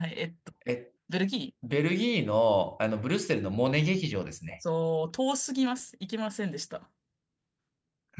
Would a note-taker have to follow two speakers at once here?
No

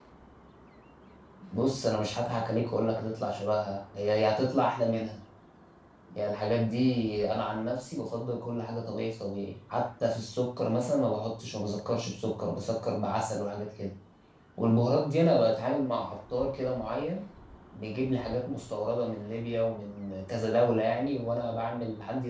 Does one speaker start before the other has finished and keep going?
No

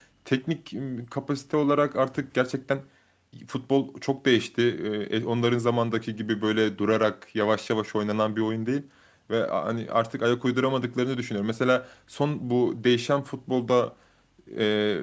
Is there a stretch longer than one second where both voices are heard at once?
No

